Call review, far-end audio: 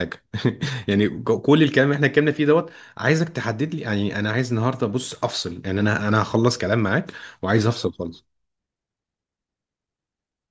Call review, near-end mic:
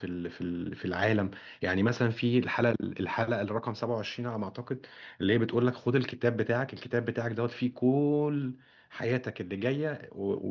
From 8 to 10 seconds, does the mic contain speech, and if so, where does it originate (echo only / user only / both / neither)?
user only